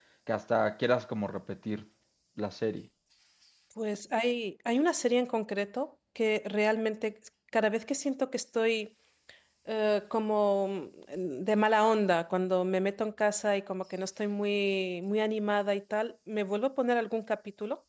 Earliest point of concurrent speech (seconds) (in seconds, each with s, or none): none